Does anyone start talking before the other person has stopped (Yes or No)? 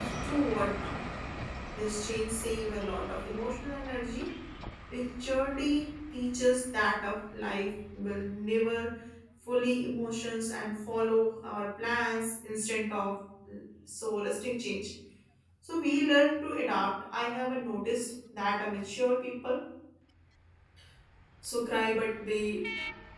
No